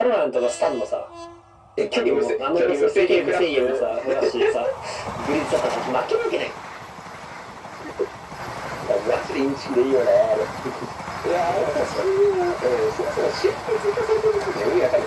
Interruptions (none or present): present